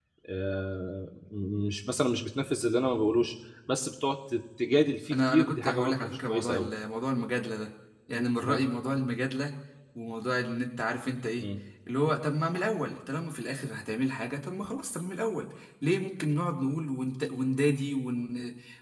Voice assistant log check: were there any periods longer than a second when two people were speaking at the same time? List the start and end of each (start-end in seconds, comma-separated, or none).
5.1-6.7